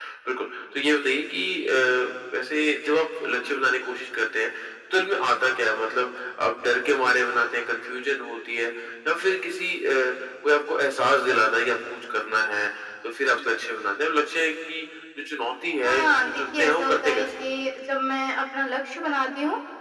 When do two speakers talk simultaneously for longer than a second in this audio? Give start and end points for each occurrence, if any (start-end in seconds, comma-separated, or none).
15.8-17.2